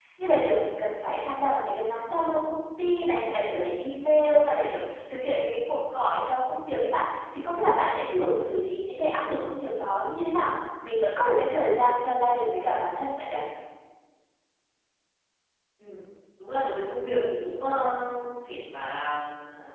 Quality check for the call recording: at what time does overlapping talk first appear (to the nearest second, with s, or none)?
none